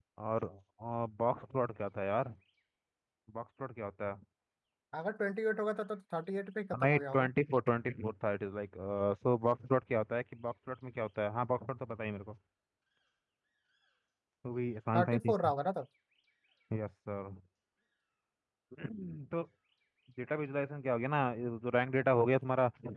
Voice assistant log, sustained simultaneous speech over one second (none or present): none